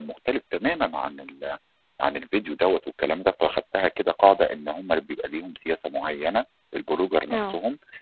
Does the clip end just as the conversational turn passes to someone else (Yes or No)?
No